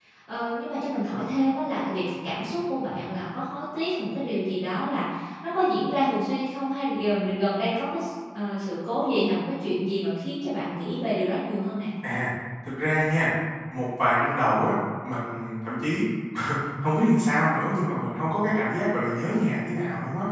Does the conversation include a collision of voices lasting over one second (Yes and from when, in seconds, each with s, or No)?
No